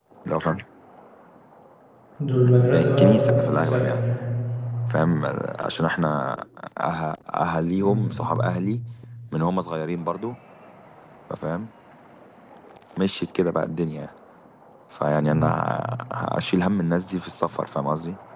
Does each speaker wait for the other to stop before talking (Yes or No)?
No